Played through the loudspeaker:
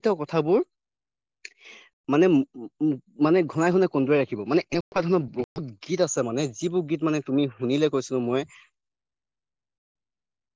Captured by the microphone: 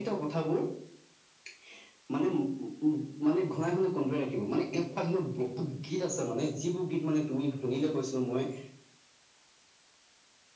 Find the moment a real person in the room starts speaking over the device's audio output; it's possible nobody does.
none

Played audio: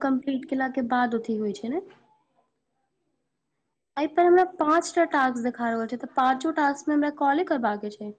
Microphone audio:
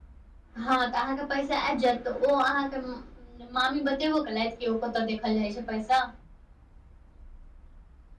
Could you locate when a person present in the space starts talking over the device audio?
0.6 s

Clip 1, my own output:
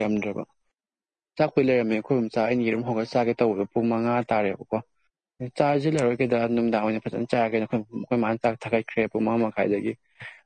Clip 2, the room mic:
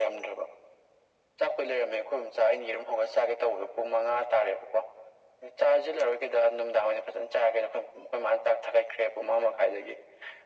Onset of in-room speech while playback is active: none

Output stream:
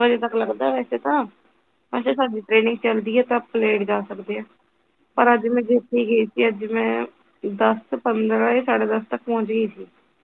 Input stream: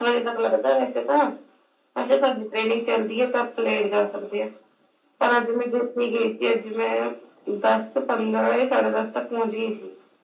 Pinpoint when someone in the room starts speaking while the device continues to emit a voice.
none

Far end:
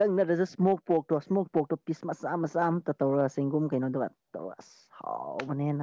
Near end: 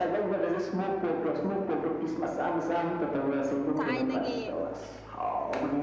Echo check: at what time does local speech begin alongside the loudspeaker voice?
3.8 s

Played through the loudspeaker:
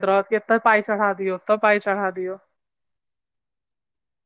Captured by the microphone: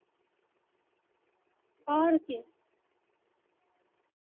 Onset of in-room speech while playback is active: 1.9 s

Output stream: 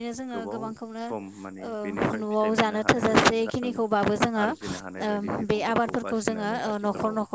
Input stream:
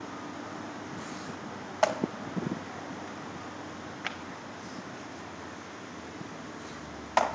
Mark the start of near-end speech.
none

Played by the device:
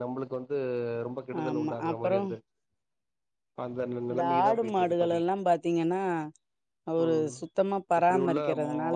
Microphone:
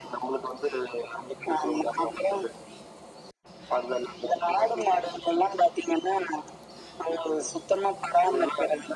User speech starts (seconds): none

